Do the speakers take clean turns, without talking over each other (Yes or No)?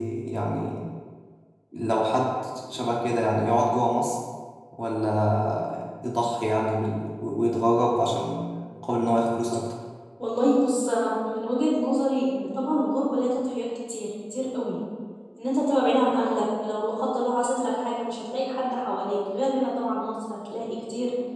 Yes